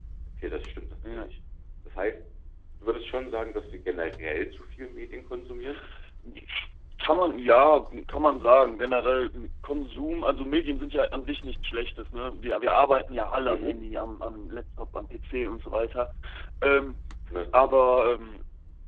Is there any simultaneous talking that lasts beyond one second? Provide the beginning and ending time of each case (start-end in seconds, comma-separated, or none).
none